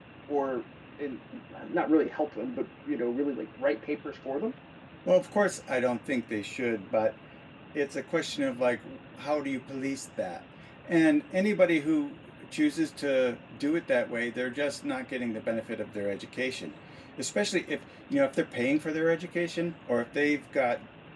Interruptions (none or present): none